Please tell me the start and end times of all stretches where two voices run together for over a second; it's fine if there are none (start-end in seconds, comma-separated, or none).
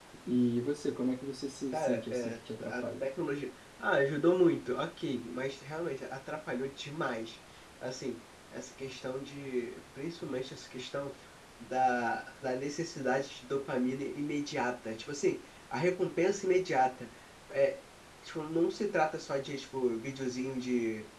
1.7-3.0